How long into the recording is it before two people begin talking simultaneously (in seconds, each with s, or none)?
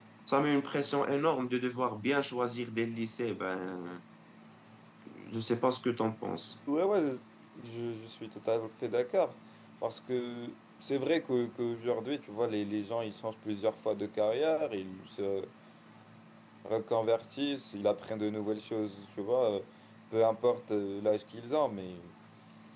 none